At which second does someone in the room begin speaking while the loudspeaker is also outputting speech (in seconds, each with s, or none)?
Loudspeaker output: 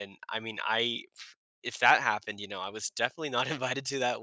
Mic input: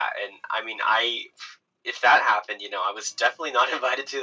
none